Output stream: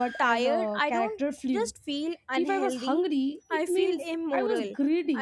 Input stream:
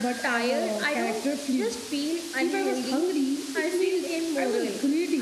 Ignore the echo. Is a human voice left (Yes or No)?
No